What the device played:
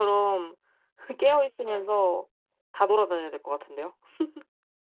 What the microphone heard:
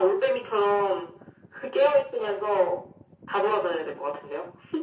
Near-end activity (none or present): none